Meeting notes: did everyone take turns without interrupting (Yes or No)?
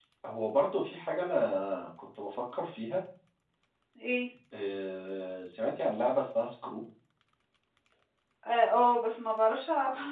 Yes